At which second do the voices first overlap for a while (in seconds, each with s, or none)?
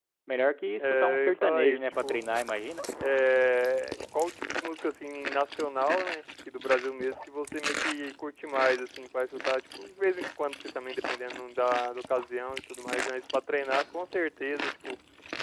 0.9 s